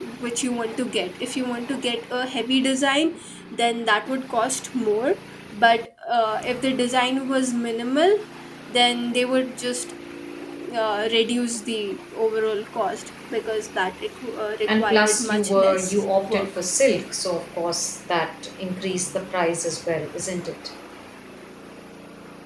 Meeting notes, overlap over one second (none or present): present